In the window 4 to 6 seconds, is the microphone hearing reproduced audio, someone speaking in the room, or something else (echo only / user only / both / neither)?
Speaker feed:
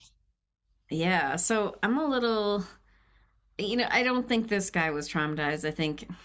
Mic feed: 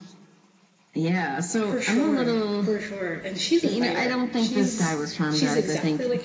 both